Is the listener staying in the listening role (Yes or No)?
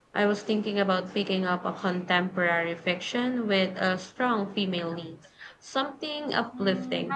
No